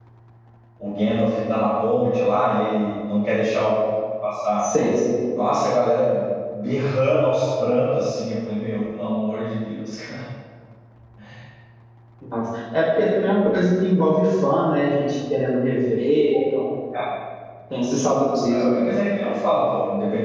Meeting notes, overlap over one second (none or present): none